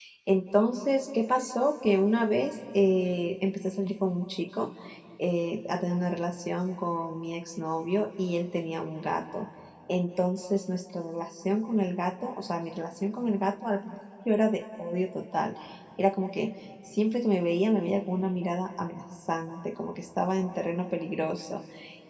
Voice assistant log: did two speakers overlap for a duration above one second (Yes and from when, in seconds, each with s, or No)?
No